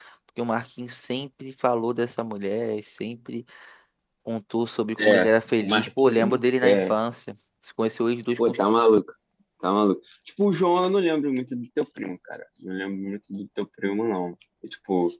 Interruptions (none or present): present